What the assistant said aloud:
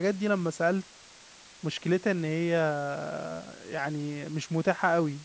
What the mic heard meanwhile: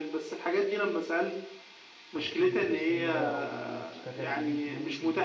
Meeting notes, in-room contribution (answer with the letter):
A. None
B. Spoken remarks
B